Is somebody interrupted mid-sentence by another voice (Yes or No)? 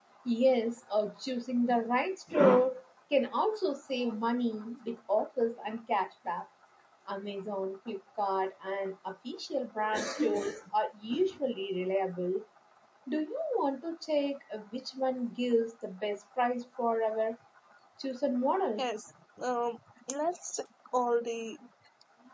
No